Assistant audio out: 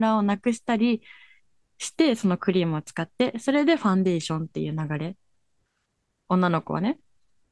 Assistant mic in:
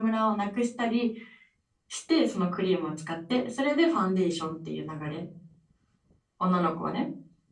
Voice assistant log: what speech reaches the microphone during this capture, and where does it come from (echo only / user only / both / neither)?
echo only